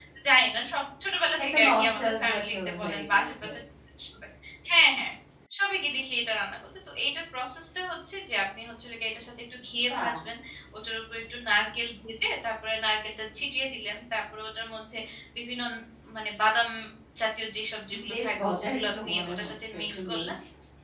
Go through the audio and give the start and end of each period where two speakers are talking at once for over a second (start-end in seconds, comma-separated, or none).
1.4-3.5, 18.1-20.1